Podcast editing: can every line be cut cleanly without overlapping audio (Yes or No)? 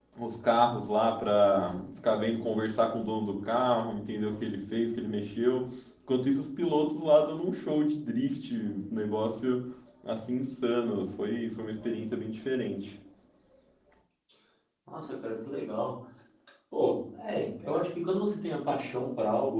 Yes